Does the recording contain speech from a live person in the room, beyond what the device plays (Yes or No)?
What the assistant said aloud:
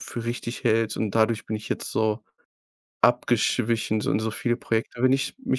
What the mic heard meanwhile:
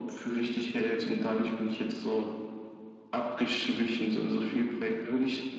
No